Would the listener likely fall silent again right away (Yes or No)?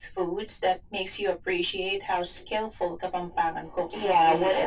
No